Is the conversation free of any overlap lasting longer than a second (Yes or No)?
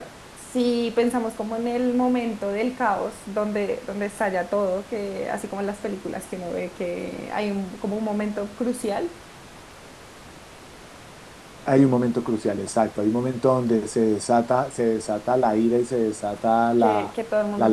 Yes